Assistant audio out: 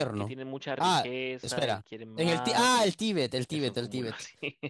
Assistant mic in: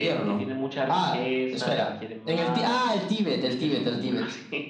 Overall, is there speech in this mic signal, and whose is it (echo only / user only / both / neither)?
echo only